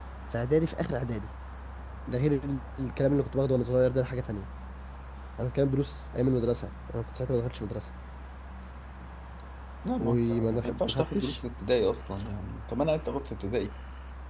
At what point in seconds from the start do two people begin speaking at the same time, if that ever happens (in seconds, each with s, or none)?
10.0 s